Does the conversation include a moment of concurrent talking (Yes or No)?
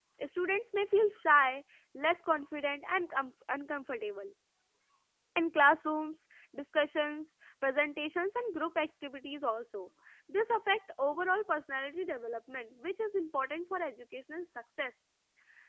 No